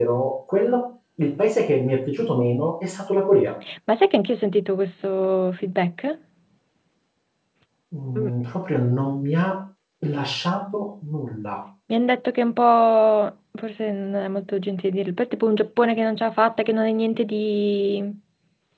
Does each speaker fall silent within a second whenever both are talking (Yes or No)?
Yes